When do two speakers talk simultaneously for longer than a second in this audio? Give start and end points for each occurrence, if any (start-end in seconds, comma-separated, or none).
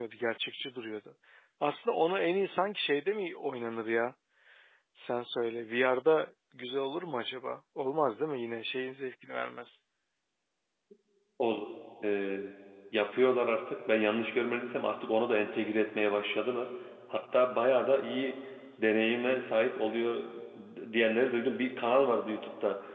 none